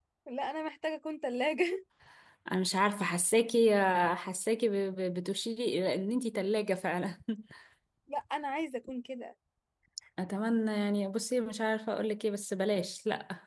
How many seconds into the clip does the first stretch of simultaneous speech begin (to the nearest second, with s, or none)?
none